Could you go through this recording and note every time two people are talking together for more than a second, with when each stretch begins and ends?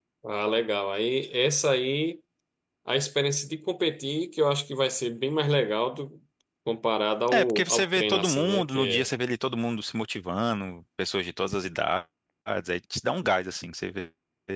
7.3-9.1

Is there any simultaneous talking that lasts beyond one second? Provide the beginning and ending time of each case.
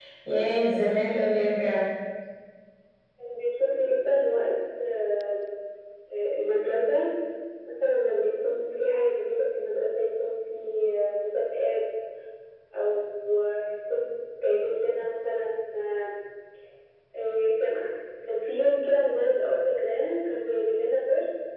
none

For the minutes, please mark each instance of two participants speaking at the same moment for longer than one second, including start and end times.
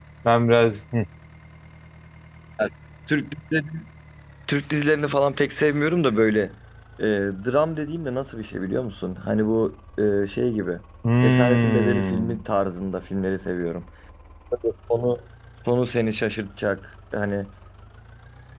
11.2-12.4

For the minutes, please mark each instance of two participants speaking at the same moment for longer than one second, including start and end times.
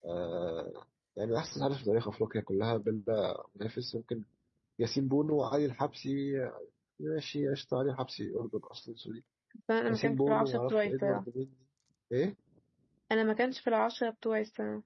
9.9-11.2

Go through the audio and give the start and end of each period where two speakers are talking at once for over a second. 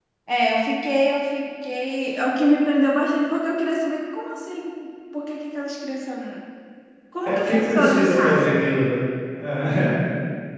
7.2-8.4

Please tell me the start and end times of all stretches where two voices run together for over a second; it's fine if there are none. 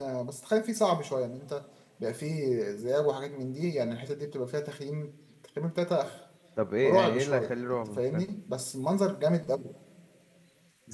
6.8-8.2

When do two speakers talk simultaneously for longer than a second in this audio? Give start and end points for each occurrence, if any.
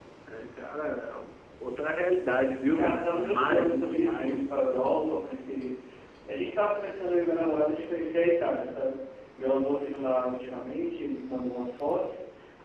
2.7-4.4

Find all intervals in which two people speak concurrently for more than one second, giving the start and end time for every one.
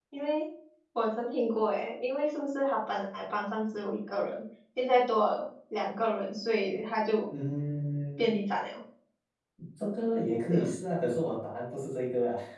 none

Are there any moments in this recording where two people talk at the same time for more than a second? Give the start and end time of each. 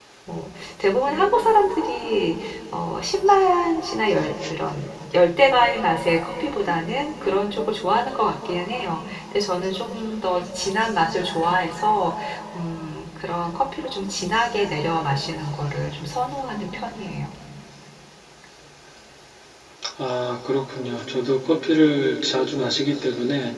none

